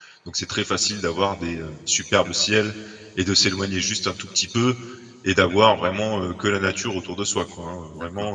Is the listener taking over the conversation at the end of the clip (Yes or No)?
Yes